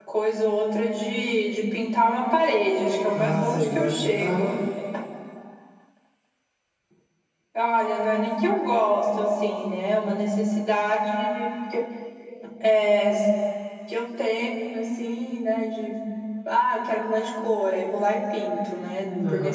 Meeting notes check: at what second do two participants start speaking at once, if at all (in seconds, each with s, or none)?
3.1 s